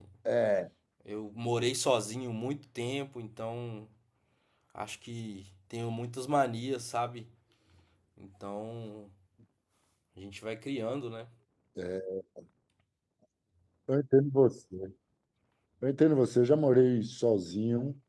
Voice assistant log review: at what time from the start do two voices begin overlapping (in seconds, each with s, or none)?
none